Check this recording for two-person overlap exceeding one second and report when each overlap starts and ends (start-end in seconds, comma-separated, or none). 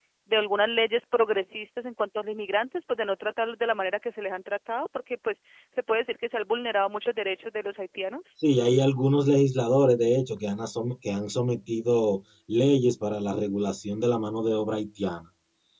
none